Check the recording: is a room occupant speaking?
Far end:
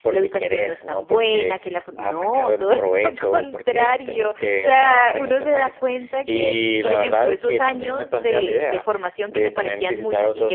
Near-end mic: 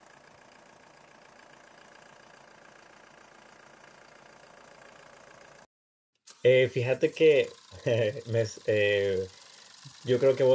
Yes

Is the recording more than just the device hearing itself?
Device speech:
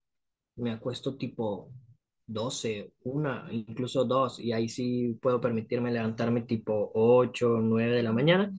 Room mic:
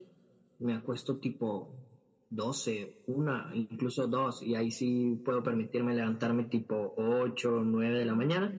No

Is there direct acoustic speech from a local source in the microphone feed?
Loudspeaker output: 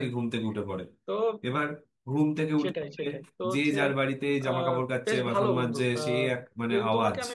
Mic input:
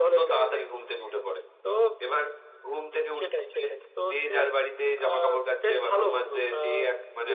No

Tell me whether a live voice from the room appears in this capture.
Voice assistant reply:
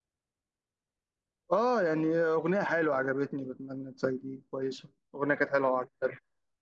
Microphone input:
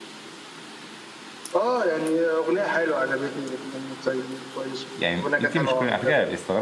Yes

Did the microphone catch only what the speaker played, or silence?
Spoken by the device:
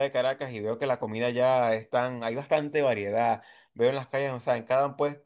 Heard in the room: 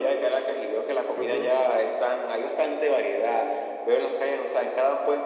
No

